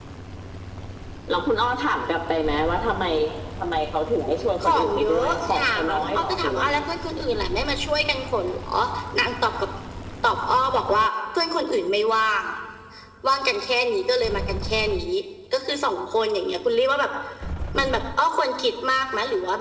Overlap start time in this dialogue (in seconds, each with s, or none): 4.6 s